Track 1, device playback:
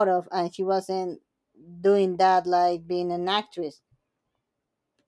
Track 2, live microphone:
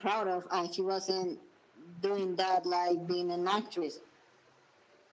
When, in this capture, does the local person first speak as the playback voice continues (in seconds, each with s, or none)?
none